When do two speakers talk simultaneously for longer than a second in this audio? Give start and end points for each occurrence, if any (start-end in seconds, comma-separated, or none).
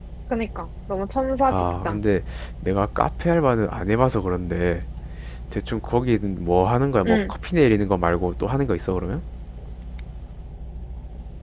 none